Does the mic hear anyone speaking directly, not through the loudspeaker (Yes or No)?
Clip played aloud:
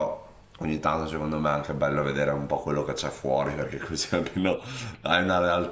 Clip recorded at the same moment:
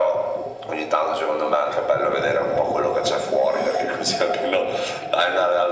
No